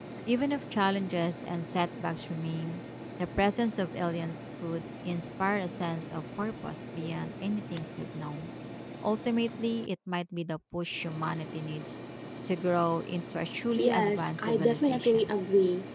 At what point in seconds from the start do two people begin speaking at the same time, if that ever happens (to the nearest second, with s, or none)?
14 s